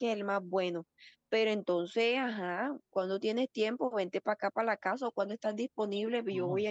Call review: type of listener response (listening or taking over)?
taking over